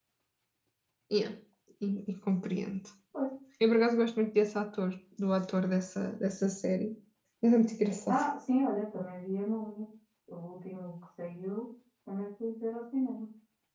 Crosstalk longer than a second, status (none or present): none